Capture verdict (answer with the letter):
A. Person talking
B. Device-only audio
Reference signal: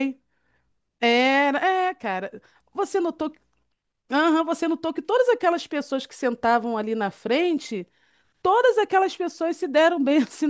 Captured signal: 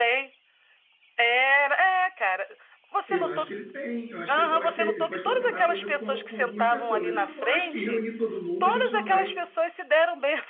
A